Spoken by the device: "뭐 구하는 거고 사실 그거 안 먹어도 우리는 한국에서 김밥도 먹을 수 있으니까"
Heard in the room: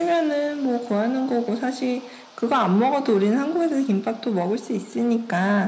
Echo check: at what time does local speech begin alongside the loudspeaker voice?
none

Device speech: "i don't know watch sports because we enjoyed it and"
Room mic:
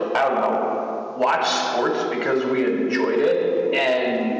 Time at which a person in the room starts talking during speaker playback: none

